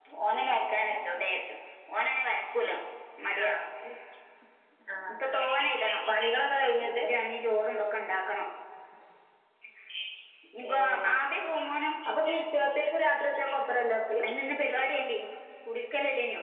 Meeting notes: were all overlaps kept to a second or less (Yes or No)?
Yes